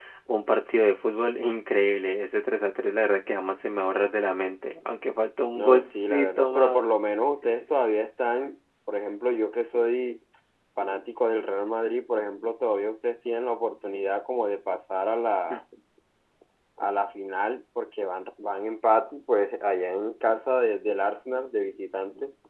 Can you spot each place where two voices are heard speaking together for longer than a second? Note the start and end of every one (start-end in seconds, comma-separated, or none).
5.6-6.8